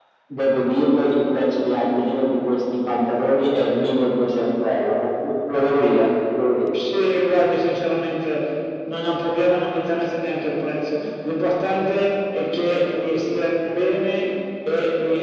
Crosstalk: none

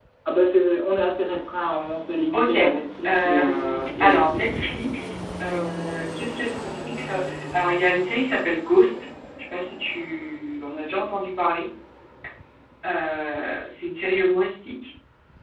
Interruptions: present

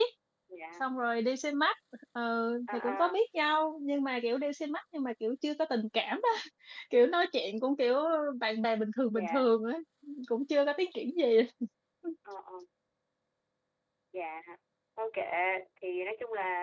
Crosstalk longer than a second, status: none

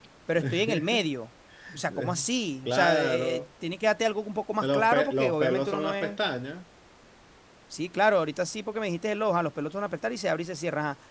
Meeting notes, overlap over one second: present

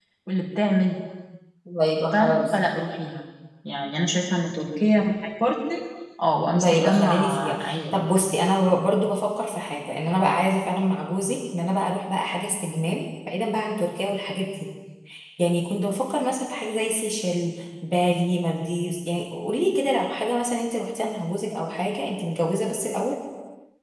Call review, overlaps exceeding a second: present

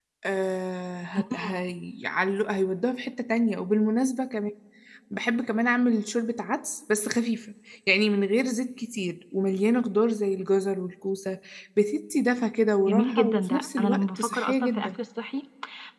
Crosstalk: present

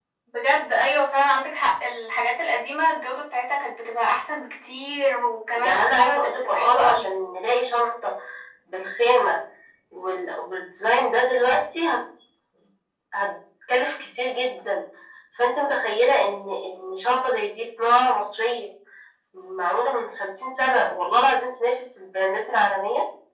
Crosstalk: present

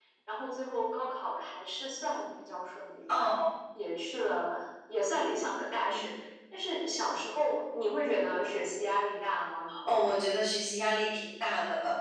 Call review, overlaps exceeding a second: none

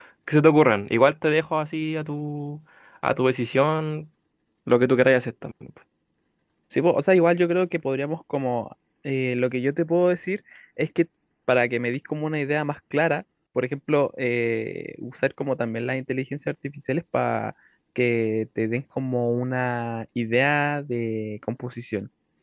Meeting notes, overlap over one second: none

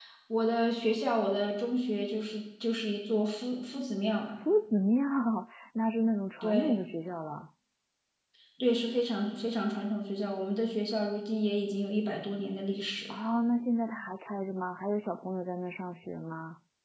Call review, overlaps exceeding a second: none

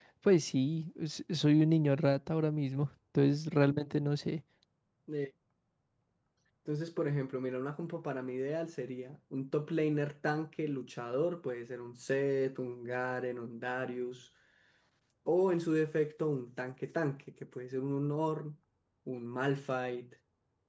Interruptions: none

